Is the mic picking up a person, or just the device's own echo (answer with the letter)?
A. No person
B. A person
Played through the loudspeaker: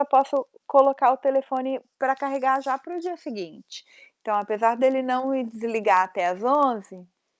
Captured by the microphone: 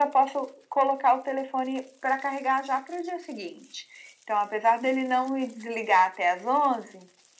A